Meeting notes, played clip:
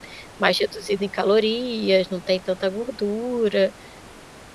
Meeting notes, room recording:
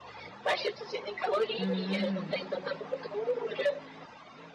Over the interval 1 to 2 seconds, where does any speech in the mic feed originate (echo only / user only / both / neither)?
both